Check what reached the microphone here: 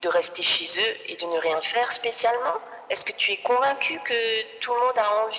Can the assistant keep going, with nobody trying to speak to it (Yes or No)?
Yes